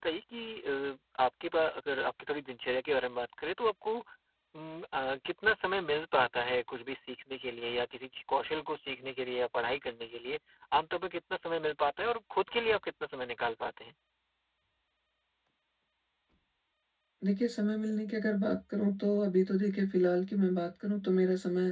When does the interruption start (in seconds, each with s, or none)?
none